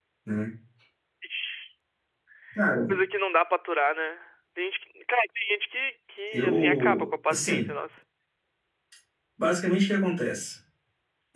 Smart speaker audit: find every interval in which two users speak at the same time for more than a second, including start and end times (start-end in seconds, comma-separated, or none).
6.3-7.7